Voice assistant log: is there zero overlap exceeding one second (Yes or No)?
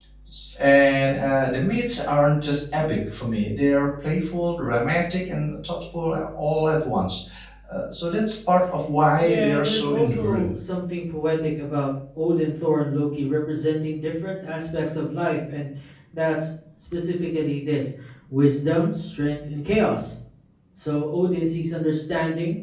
No